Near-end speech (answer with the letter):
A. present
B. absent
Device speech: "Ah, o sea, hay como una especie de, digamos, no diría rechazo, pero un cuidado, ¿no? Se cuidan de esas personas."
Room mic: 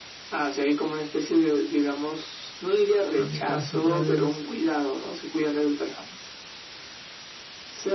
A